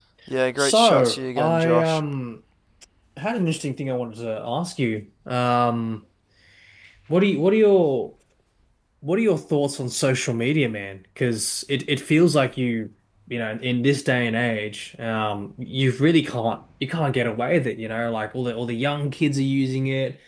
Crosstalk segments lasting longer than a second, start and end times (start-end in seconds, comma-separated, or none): 0.6-2.0